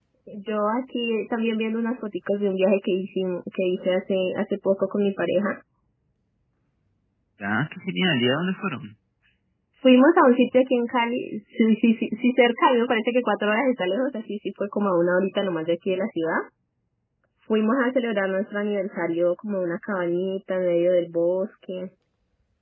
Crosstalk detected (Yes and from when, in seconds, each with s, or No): No